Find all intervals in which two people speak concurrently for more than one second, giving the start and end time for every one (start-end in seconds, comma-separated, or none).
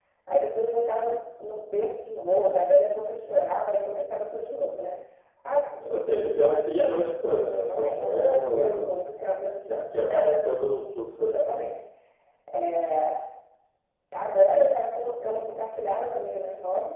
7.5-8.9